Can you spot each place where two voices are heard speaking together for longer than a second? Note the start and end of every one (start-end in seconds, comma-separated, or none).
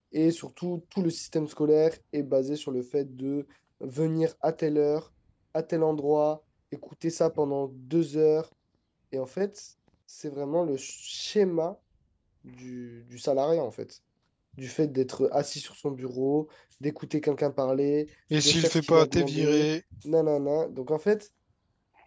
18.4-19.7